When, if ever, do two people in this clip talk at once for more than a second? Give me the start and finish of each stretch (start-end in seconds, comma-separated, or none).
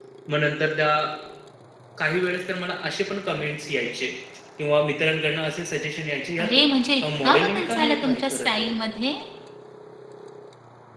7.0-8.7